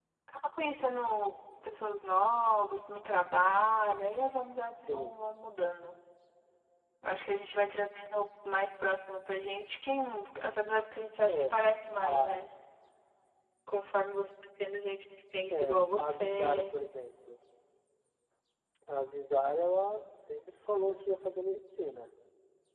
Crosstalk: present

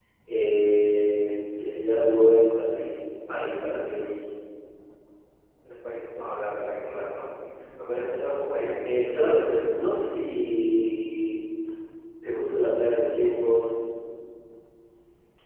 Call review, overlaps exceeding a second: none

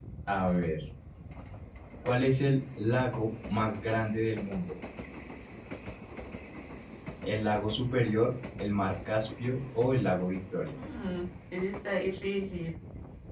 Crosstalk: none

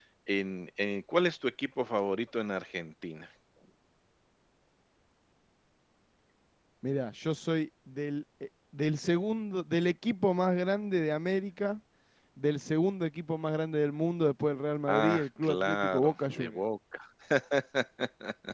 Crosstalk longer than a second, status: present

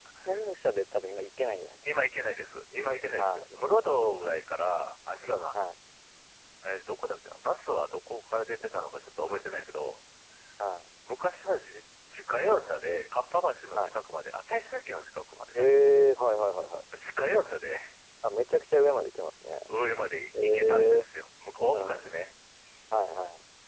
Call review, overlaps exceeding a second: present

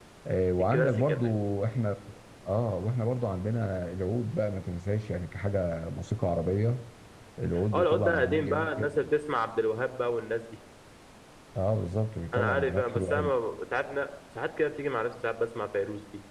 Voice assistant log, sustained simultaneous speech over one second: present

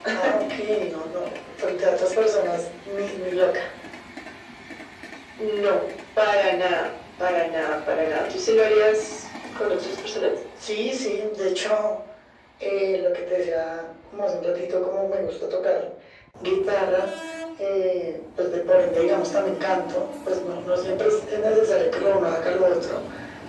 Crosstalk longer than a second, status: none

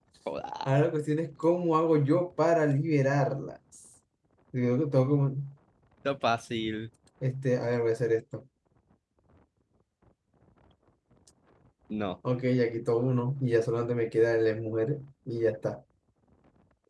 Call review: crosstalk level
none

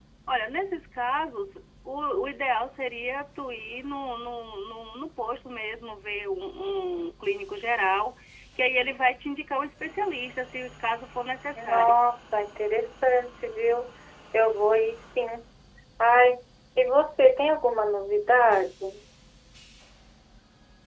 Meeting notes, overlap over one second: none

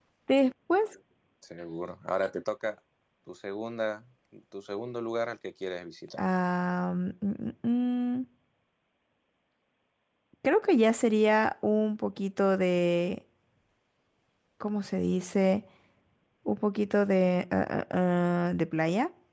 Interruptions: none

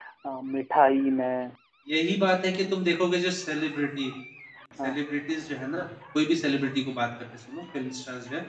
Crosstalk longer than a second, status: none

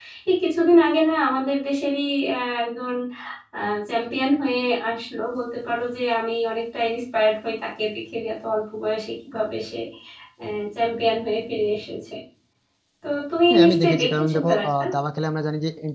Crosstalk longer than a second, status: present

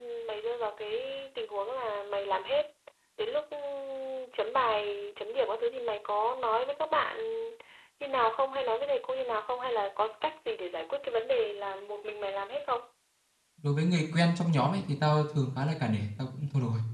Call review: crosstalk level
none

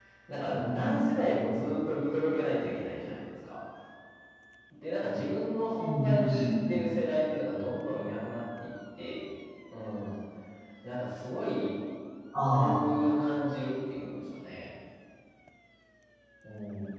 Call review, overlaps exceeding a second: present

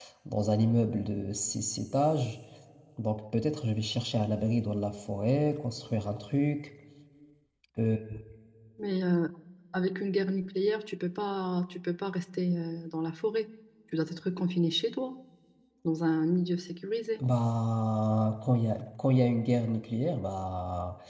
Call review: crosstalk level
none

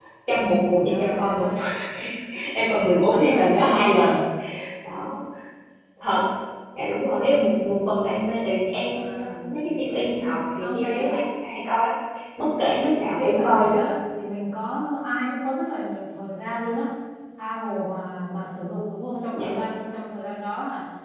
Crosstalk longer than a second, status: present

